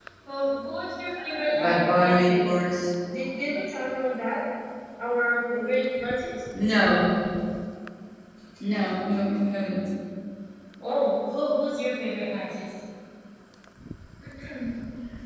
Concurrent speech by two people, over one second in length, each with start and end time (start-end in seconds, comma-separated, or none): 1.3-2.6